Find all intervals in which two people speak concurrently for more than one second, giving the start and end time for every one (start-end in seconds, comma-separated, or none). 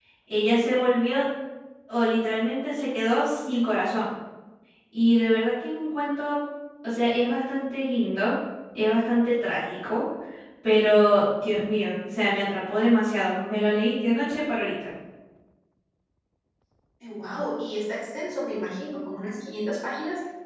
none